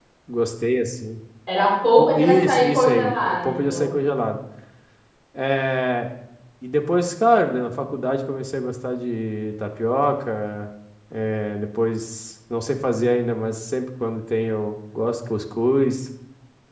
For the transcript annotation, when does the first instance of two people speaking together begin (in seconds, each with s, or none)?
2.0 s